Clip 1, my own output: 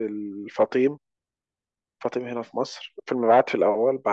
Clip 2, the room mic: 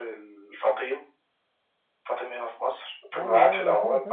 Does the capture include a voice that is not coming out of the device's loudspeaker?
Yes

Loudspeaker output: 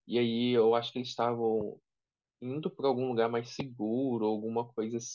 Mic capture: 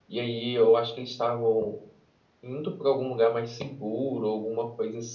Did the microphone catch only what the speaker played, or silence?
Yes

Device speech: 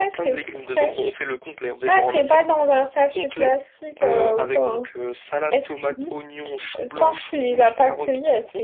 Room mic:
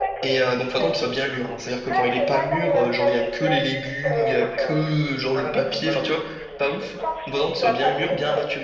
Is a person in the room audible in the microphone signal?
Yes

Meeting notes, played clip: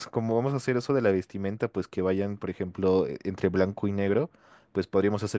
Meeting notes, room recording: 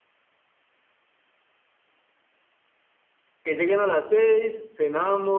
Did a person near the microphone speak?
Yes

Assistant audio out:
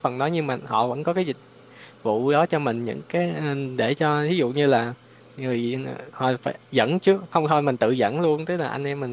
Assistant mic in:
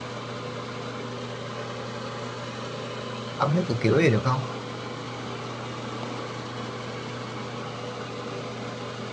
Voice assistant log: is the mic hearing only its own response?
No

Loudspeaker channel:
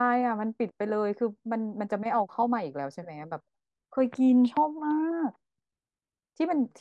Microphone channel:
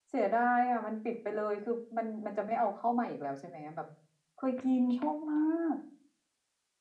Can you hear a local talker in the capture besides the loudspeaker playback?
No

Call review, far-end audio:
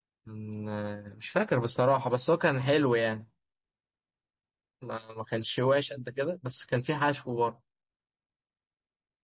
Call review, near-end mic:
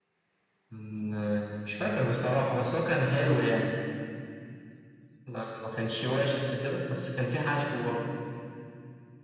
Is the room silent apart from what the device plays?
Yes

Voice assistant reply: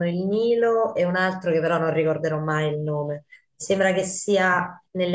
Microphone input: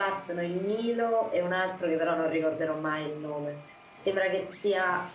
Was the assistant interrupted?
No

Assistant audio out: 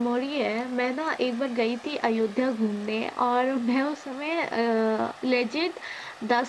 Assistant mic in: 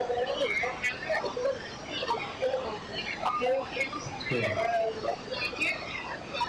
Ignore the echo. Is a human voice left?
Yes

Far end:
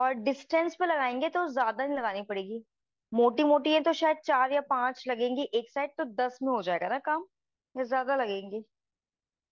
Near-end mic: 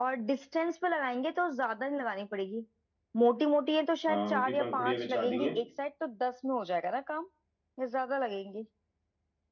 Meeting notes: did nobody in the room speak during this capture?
No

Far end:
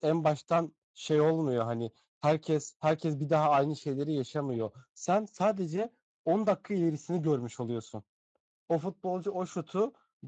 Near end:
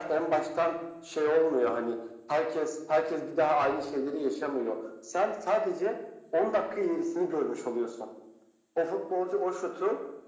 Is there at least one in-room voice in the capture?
No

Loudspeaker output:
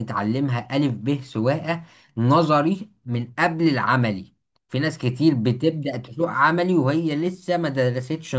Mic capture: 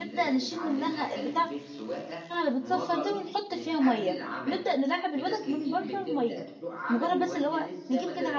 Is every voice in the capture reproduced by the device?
No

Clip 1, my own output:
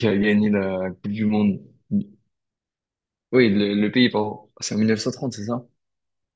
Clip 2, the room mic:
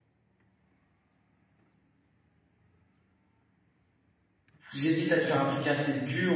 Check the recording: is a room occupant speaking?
Yes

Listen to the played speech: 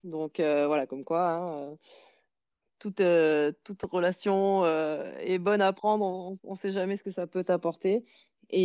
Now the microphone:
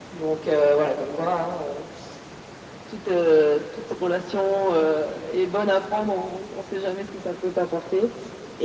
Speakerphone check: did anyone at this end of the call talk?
No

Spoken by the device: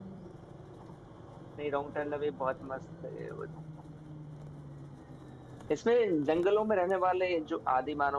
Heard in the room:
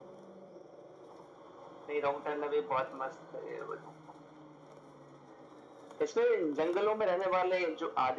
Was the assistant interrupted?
No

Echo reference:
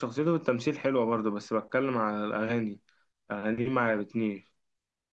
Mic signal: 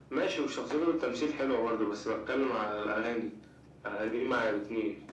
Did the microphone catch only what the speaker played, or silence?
Yes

